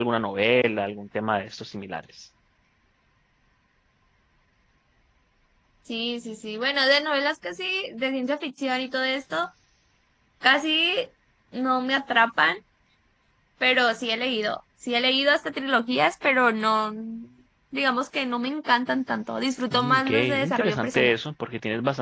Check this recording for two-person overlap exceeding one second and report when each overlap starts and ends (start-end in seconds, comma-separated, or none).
19.7-21.1